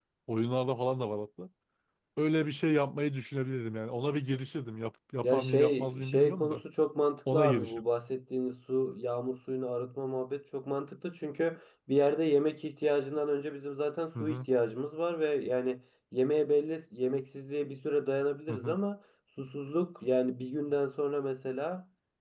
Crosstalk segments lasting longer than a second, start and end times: 5.2-6.6

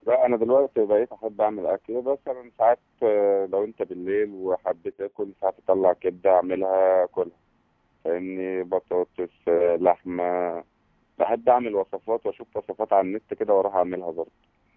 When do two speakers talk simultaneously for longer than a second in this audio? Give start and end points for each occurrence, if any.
none

